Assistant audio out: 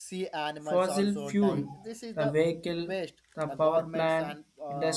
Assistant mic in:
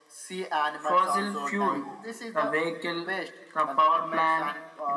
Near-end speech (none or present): none